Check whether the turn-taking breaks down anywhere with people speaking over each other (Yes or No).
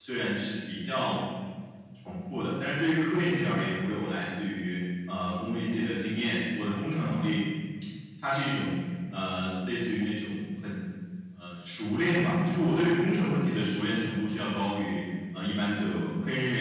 No